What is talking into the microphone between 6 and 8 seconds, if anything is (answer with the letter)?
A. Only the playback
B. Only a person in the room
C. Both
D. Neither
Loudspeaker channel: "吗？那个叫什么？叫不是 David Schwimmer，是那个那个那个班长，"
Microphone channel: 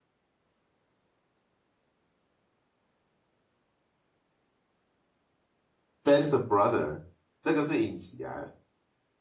B